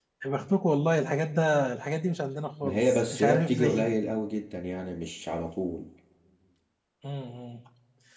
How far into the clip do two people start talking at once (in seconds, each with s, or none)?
2.6 s